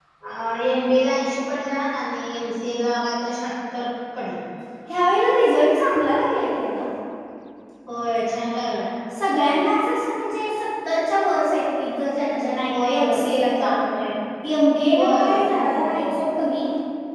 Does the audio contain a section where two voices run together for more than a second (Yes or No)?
Yes